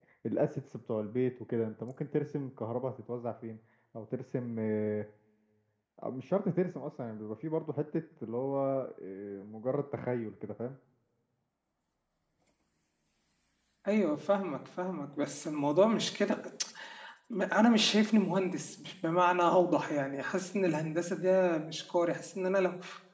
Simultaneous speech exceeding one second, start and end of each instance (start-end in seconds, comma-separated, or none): none